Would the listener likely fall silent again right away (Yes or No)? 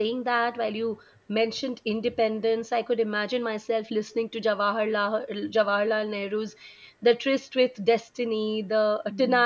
Yes